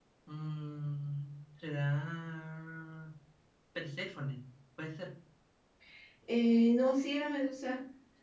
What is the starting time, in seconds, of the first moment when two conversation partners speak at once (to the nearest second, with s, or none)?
none